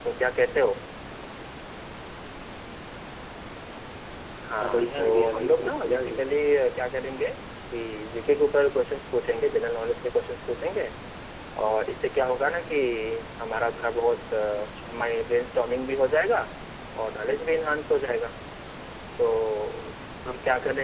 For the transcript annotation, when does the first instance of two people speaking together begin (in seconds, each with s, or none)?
4.6 s